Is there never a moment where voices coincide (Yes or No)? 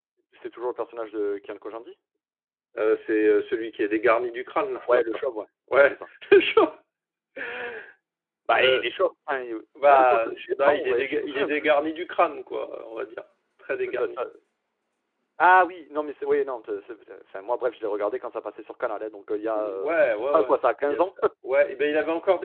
No